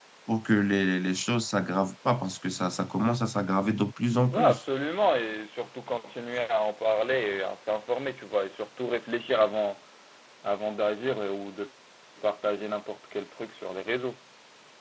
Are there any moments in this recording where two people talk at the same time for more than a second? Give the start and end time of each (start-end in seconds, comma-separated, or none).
none